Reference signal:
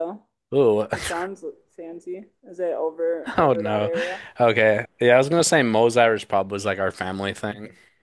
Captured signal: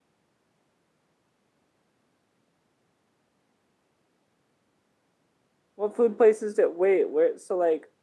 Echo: none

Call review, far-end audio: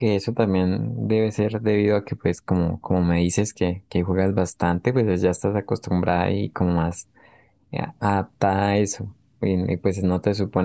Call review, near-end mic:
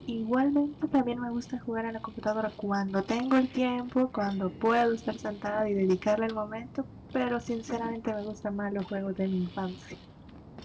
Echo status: none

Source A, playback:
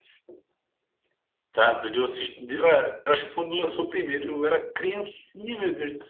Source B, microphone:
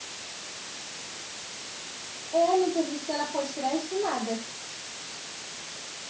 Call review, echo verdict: none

